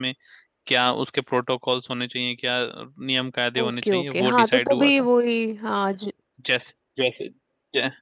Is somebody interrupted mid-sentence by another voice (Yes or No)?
Yes